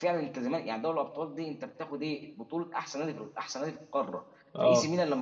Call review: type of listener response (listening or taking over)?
listening